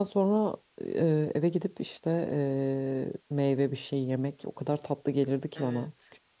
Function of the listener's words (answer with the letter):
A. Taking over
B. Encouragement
A